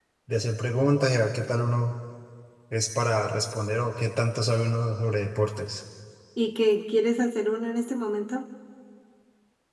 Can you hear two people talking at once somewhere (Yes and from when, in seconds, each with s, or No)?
No